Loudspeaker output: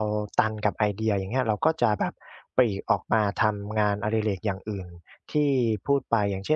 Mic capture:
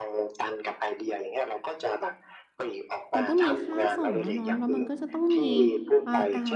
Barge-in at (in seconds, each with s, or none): 3.1 s